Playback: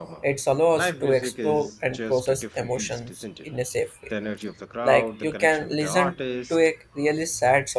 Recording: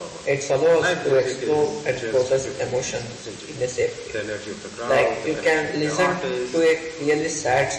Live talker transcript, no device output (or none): none